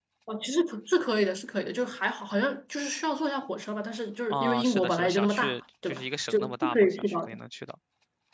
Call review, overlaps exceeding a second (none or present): present